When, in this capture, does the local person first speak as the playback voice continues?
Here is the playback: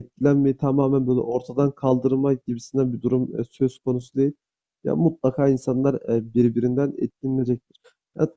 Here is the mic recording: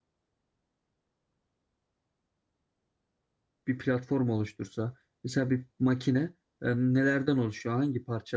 3.7 s

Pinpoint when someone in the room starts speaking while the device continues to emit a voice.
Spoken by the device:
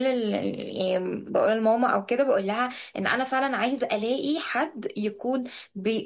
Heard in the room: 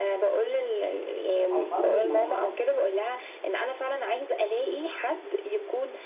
1.5 s

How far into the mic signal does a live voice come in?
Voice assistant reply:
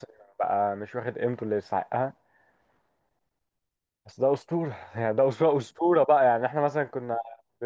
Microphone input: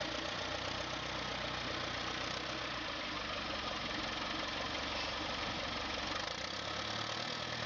none

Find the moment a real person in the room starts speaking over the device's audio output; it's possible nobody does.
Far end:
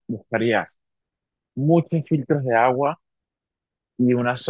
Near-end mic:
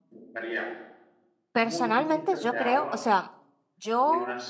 1.5 s

